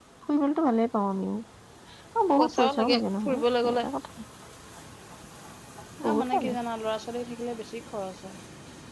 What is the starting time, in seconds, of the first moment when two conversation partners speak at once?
2.4 s

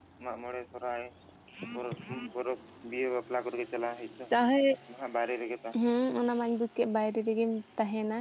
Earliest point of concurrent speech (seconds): none

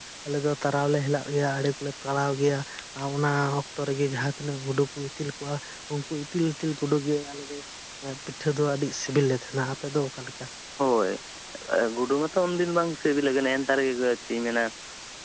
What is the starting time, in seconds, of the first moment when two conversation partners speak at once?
none

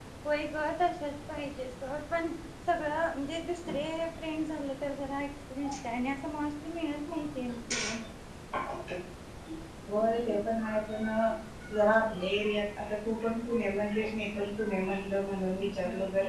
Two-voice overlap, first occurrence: none

